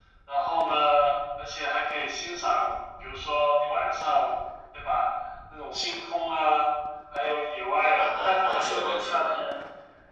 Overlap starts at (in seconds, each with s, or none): 7.8 s